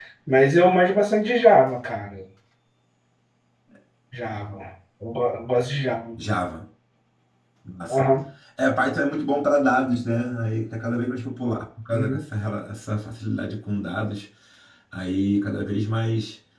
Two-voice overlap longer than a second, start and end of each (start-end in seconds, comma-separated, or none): none